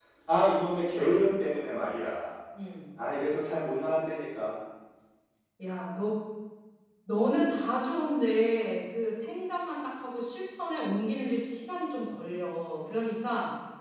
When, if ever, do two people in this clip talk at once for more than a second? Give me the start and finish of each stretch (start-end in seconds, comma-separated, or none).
none